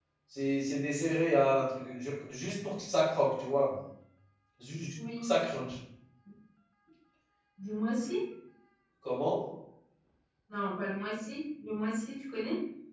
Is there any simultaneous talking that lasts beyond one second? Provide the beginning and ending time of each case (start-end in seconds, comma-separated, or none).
none